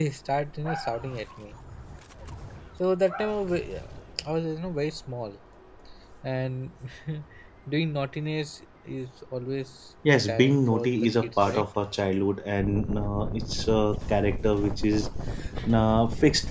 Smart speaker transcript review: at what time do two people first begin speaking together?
10 s

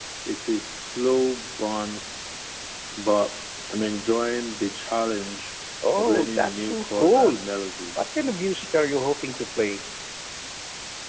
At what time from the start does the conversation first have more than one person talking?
6 s

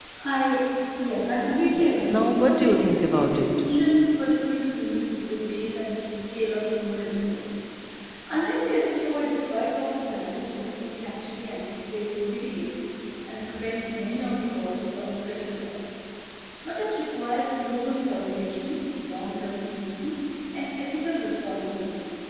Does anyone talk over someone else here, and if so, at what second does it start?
2 s

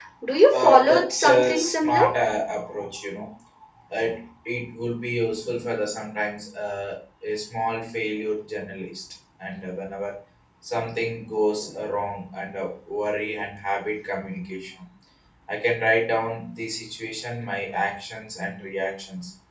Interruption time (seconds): 1 s

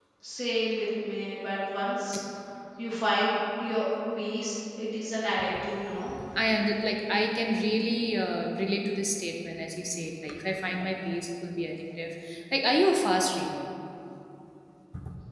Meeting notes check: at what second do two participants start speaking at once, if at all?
none

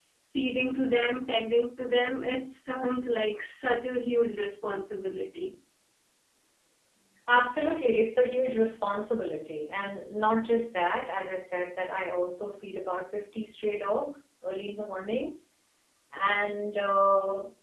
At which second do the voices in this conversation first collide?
none

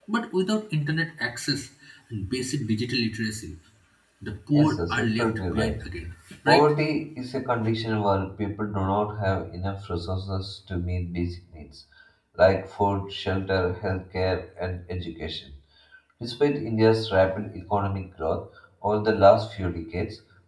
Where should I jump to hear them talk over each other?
5 s

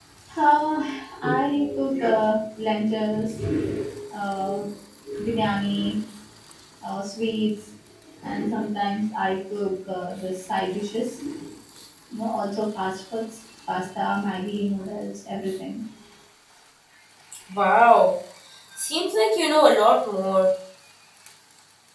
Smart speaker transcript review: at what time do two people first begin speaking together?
none

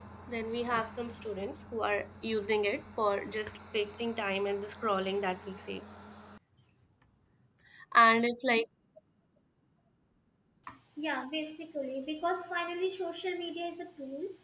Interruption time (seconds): none

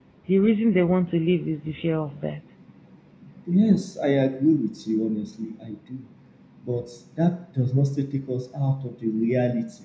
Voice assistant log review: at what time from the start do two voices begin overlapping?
none

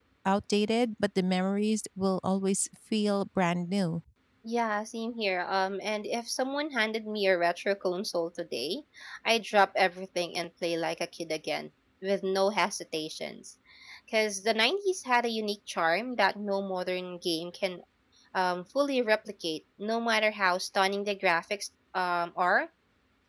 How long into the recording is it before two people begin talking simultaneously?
none

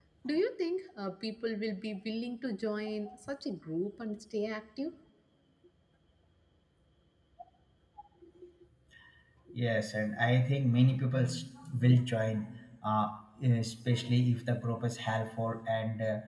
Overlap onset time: none

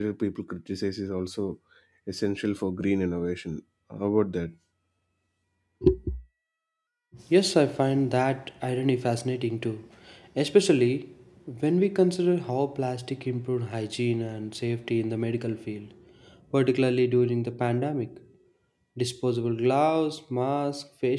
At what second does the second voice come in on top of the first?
none

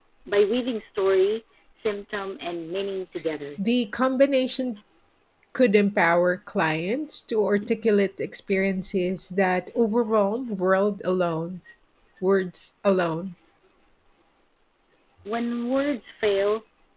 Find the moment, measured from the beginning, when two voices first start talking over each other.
none

